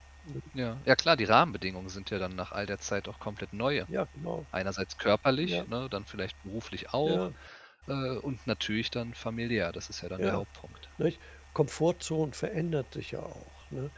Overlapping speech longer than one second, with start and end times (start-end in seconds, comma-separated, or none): none